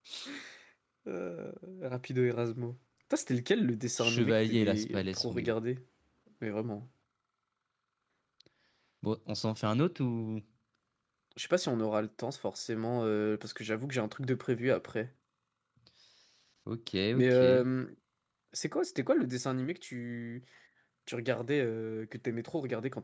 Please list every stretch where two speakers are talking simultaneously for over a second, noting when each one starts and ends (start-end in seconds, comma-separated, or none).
4.0-5.5